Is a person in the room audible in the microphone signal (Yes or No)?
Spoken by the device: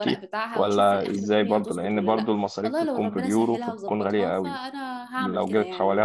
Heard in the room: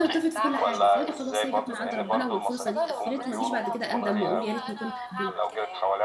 Yes